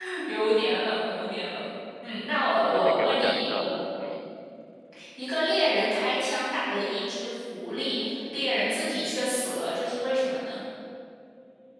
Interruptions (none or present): present